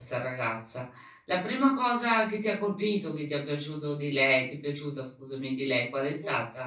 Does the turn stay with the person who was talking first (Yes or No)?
No